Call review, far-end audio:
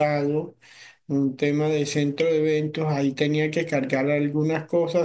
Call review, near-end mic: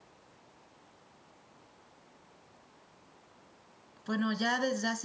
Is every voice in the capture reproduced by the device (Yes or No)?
No